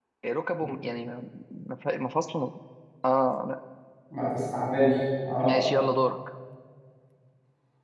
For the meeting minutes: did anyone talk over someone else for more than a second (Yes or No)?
No